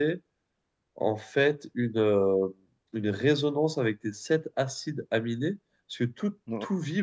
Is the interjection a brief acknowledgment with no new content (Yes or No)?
Yes